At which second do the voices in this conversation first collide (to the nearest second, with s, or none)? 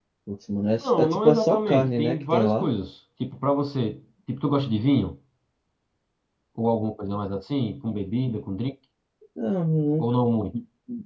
1 s